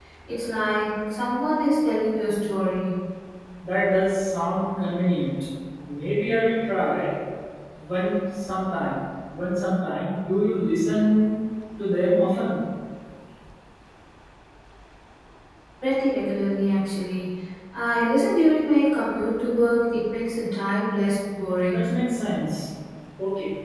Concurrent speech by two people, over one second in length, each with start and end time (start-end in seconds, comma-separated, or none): none